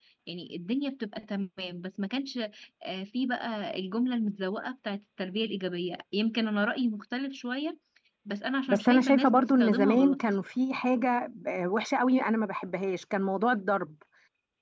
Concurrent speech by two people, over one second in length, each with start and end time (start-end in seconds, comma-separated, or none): 8.7-10.2